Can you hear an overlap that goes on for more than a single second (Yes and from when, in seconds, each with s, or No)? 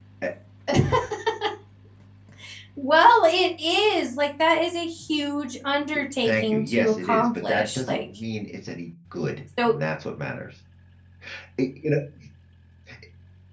Yes, from 6.2 s